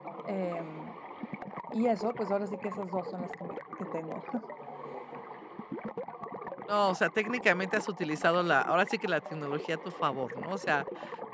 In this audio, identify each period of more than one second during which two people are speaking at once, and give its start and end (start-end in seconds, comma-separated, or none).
none